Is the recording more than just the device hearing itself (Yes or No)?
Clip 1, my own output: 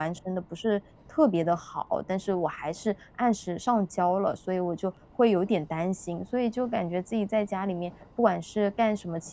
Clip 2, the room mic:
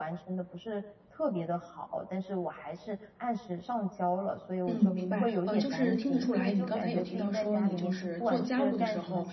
Yes